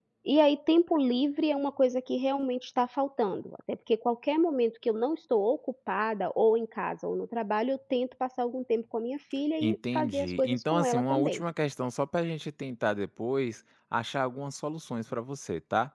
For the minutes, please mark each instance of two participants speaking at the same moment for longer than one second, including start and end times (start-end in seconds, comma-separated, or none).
9.6-11.4